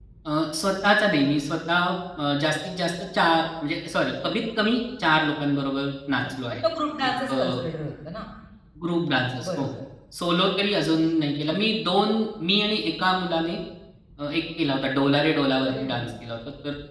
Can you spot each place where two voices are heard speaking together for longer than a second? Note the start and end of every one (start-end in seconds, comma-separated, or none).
none